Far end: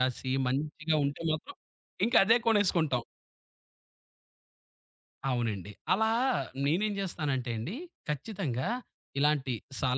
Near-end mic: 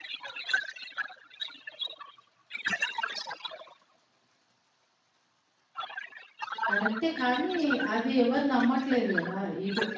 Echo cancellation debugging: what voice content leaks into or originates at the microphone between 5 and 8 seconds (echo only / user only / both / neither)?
both